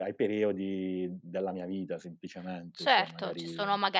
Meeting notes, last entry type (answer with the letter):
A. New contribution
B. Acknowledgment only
A